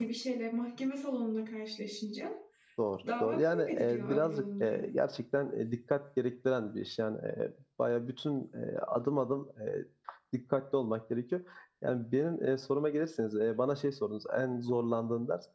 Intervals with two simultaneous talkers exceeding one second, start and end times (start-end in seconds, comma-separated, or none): 3.1-4.8